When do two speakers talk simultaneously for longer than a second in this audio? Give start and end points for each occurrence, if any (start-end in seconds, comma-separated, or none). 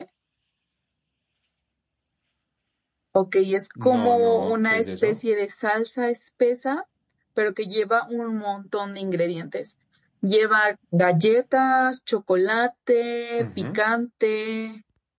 3.8-5.2